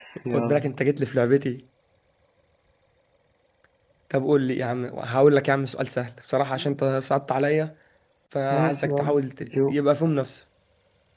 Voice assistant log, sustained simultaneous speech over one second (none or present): present